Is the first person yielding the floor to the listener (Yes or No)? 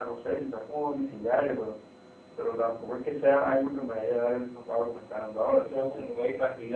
Yes